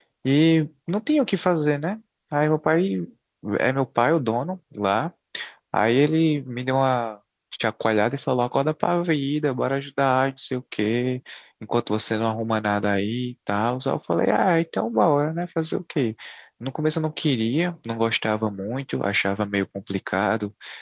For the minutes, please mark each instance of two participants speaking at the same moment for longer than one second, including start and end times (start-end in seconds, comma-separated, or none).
none